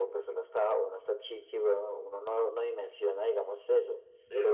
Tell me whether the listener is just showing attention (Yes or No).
Yes